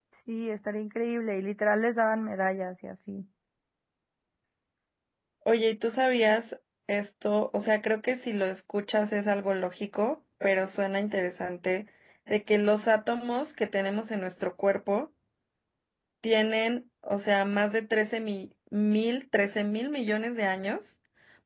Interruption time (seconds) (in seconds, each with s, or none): none